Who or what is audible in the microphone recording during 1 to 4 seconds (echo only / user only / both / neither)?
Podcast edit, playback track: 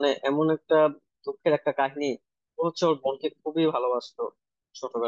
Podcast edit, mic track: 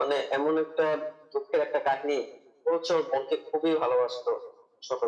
echo only